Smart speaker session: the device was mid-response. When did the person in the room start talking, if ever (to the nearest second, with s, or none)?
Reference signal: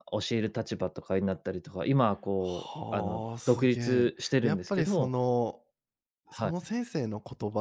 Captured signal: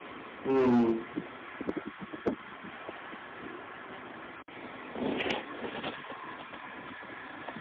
0 s